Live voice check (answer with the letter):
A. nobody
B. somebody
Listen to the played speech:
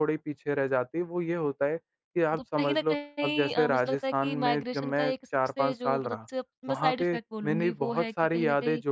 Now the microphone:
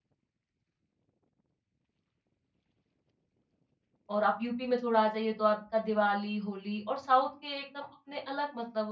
B